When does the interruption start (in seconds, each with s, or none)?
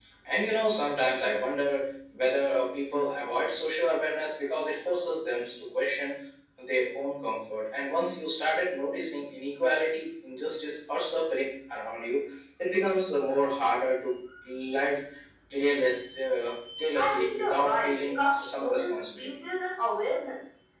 17.0 s